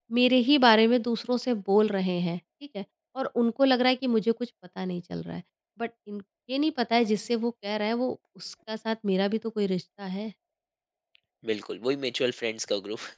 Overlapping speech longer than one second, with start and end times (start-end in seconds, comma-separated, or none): none